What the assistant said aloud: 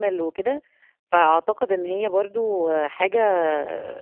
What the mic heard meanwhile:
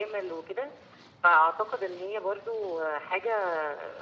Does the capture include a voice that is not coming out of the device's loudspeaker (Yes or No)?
No